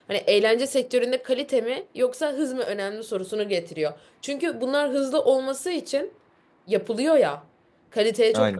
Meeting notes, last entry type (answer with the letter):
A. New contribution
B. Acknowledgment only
B